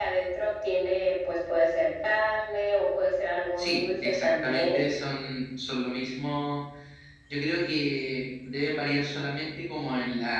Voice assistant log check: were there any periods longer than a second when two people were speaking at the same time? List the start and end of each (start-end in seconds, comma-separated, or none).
3.6-4.8